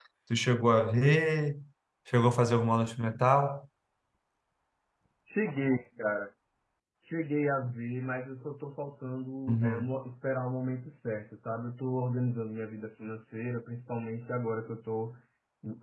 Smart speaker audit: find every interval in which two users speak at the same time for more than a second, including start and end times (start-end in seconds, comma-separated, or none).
none